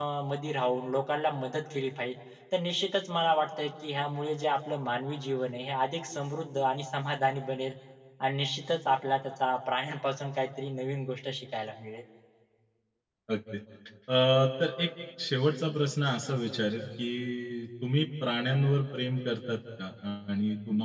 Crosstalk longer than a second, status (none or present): none